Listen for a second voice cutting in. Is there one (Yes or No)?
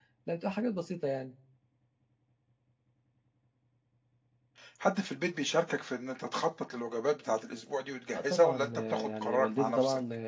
Yes